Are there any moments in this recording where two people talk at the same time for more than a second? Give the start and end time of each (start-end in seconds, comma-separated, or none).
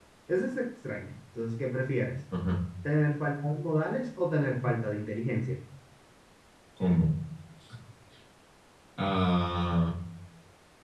none